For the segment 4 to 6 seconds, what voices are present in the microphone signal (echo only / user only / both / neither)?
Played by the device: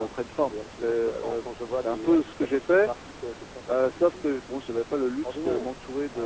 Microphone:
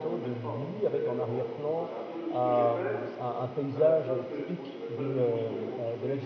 both